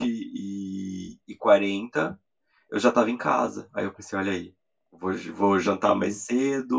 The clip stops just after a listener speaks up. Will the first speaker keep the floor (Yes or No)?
Yes